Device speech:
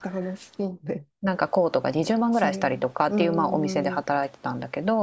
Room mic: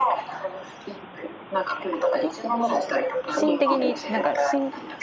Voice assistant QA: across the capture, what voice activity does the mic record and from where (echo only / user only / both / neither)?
both